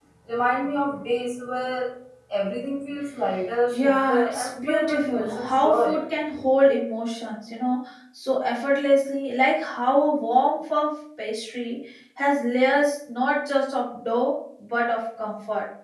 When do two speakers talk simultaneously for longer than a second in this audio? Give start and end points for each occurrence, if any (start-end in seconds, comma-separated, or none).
3.7-6.0